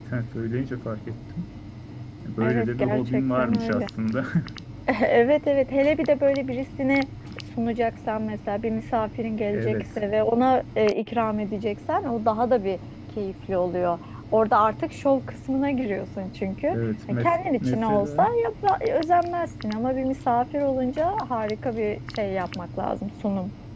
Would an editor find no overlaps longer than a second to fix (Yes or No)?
No